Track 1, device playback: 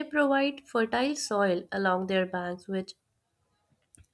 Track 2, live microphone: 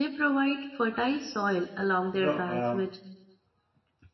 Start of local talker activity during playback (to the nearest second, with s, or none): 2 s